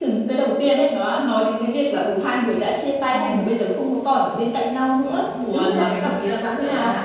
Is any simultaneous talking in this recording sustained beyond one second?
Yes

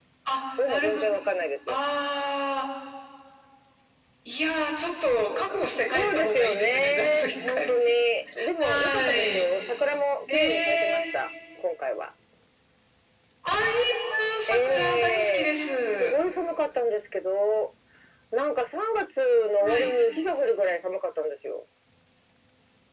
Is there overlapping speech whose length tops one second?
Yes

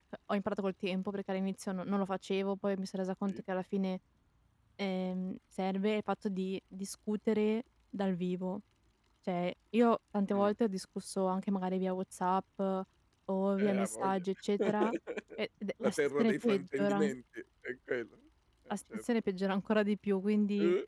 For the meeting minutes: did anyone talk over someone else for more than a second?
Yes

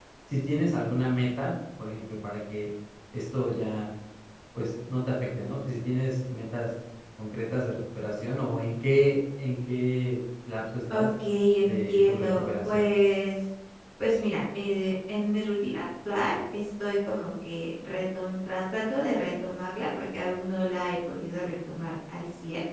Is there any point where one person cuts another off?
Yes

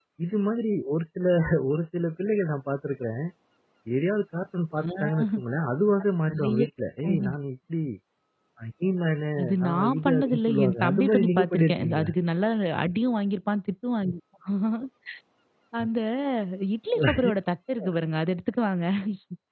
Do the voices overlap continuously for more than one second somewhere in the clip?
Yes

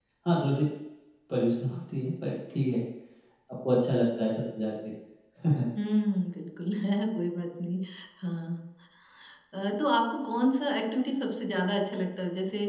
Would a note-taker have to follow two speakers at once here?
No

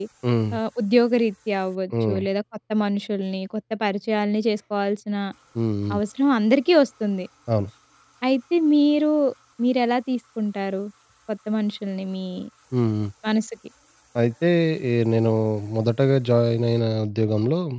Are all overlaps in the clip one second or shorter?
Yes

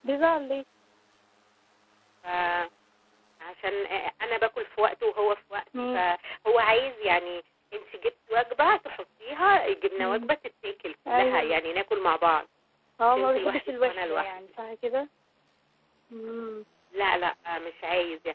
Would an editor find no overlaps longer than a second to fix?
No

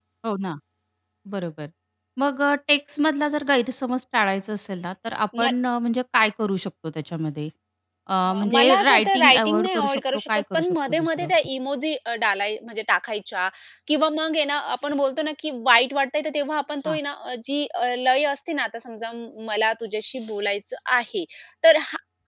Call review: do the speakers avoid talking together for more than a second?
No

